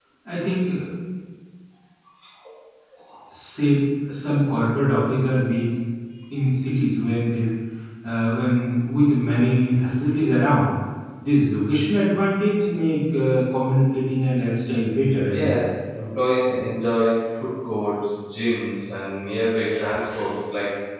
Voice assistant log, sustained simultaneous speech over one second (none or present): none